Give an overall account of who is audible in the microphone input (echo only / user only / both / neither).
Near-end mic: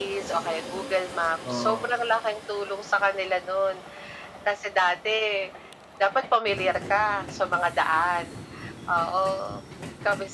both